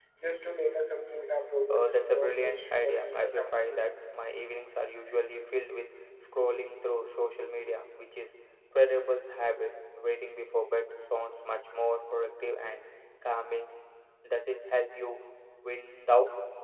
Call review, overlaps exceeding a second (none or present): present